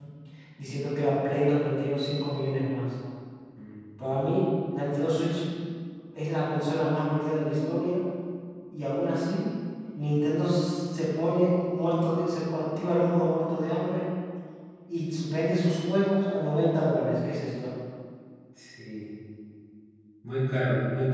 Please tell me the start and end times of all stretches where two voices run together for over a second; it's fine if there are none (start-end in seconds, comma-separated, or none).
none